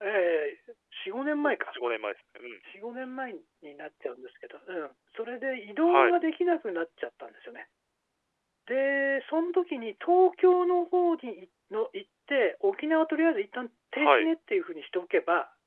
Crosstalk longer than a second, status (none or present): none